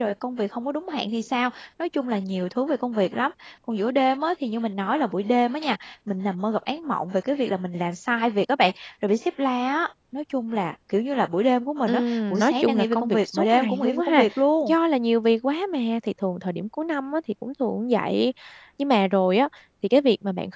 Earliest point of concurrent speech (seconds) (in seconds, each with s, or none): 11.9 s